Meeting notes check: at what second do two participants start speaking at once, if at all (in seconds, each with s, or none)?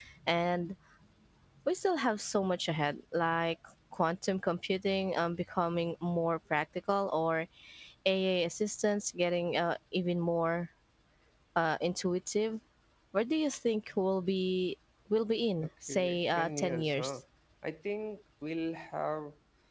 15.6 s